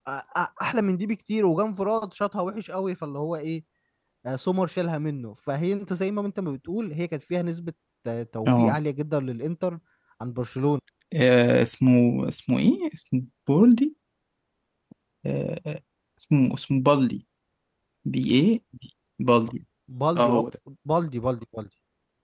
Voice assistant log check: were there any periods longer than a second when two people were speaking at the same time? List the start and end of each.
none

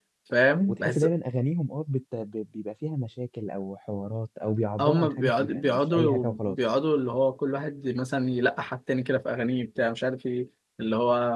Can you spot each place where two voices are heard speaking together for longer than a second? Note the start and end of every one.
4.8-6.6

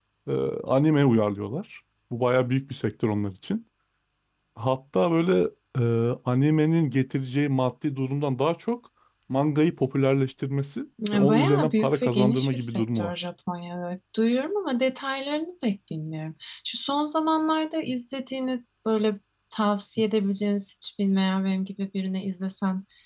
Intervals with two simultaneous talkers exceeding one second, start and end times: 11.1-13.1

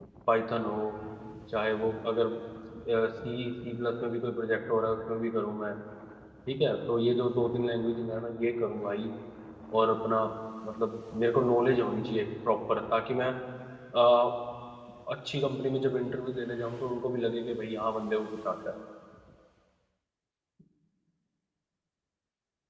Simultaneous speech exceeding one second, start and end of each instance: none

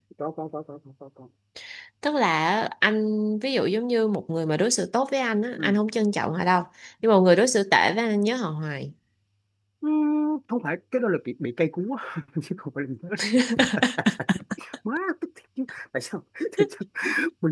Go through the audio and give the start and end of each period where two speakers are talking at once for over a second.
none

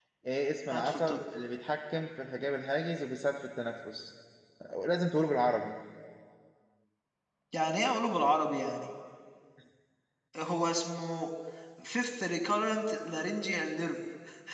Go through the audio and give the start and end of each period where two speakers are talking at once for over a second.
none

